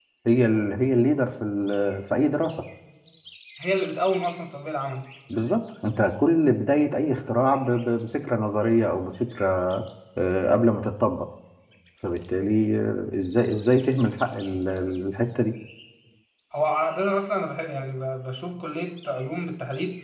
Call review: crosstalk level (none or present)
none